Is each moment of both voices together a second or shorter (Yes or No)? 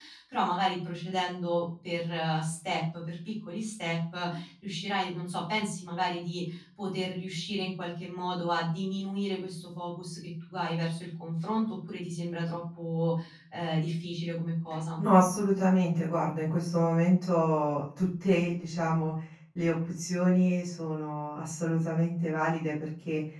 Yes